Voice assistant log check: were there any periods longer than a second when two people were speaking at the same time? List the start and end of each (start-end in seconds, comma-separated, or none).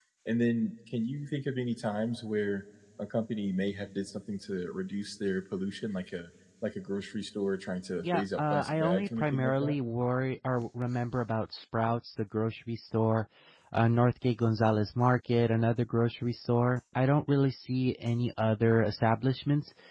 8.0-9.7